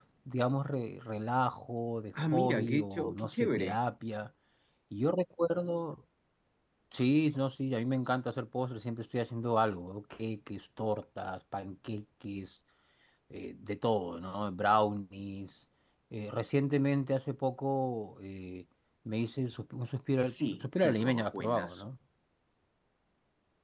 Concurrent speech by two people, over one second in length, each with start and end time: 2.1-3.8, 20.3-21.9

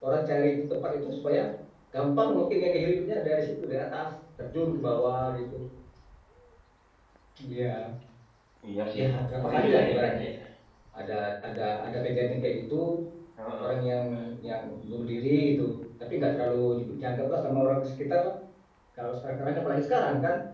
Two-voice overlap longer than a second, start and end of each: 9.0-10.2

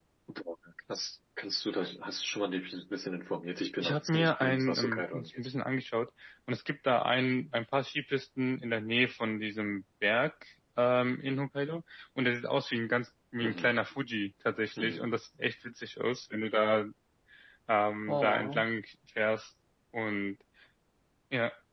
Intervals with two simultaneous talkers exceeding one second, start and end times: 3.8-5.5

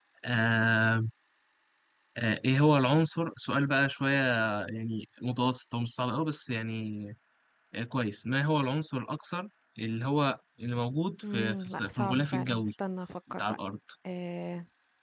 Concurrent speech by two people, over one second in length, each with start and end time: 11.3-12.7

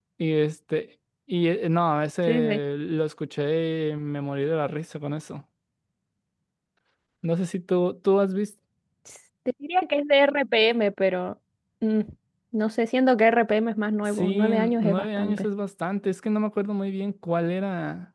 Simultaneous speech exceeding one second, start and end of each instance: 14.1-15.5

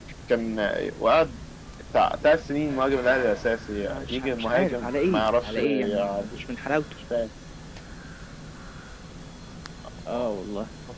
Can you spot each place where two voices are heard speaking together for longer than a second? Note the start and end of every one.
3.8-6.4

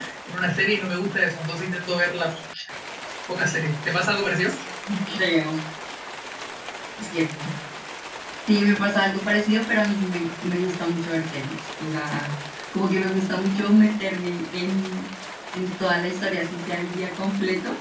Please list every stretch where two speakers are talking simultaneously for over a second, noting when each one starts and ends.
none

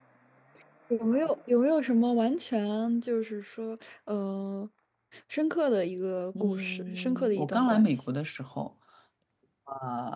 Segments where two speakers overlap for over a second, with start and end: 6.4-8.1

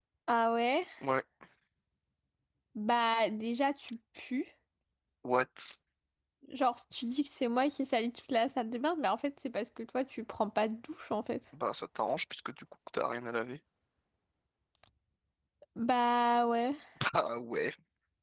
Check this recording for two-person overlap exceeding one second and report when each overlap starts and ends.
none

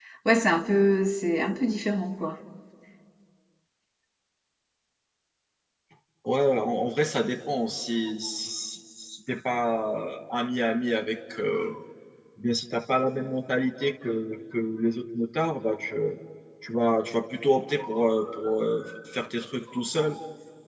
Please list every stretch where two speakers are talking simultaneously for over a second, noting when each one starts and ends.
none

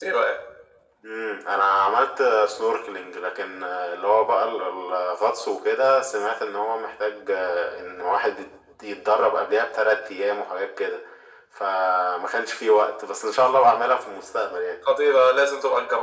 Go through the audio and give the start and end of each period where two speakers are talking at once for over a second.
none

